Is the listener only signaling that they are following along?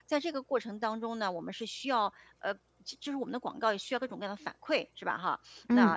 Yes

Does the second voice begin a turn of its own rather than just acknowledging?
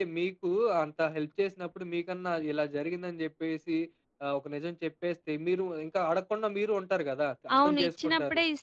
Yes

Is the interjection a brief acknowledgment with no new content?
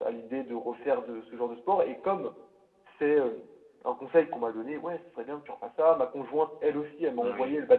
Yes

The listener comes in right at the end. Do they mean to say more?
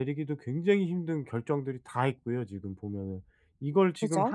No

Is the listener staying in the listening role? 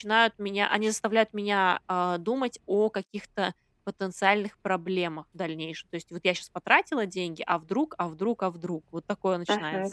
No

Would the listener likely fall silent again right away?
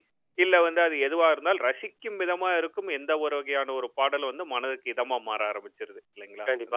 No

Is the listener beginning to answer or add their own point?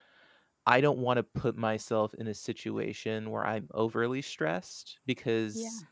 No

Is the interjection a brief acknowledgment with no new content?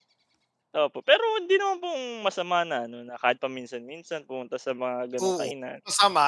No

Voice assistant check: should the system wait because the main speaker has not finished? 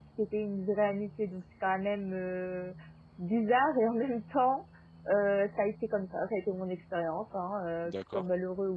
Yes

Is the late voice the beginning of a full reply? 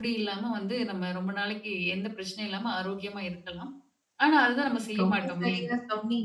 Yes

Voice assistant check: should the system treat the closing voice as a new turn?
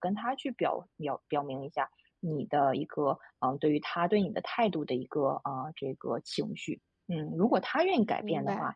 No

